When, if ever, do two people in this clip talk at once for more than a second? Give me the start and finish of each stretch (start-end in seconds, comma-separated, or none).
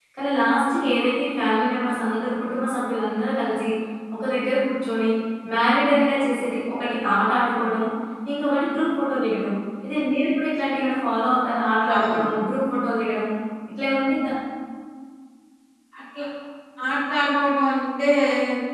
none